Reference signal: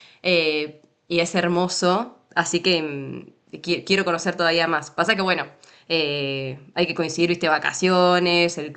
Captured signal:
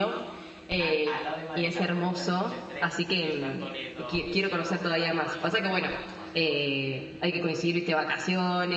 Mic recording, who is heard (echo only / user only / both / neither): both